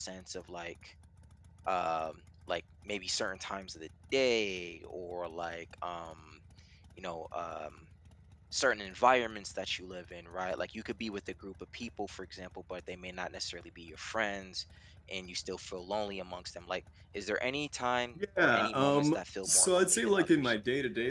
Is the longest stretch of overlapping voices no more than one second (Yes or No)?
No